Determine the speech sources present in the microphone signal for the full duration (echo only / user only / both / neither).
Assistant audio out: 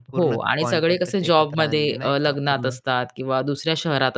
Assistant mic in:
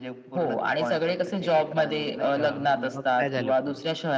both